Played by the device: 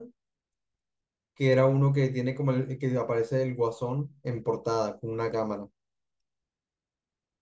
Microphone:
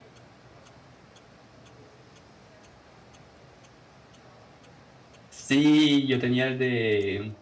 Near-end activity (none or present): present